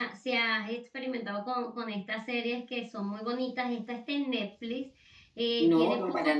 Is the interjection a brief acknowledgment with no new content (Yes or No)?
No